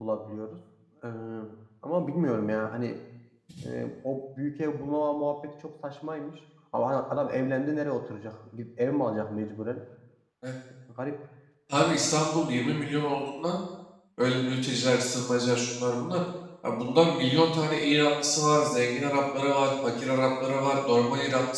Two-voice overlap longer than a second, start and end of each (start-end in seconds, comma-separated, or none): none